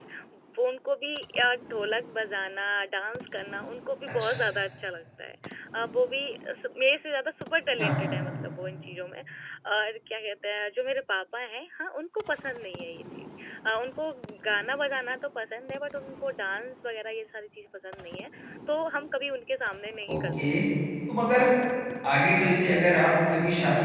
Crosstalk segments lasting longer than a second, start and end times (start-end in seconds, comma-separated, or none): none